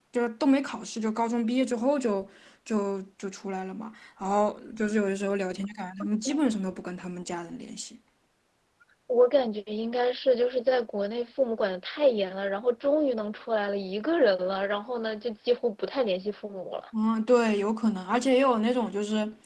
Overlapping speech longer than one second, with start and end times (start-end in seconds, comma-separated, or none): none